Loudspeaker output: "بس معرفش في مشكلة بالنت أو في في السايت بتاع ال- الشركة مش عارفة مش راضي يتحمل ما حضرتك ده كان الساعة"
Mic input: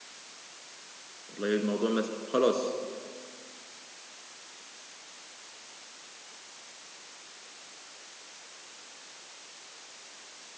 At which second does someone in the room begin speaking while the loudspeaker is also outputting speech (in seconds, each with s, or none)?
1.3 s